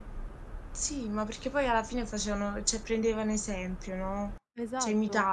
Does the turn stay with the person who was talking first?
No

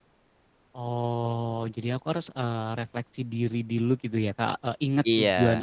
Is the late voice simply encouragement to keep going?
Yes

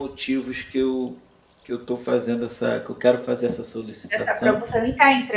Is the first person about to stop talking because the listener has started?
Yes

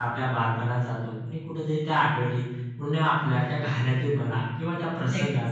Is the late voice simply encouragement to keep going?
Yes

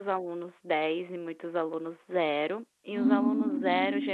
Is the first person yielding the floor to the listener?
No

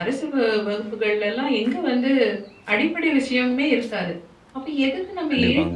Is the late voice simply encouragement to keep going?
Yes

